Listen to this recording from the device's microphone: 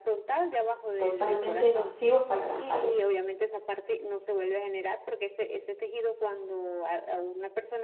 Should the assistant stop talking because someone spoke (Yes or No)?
Yes